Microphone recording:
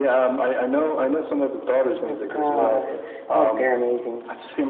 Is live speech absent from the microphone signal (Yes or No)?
No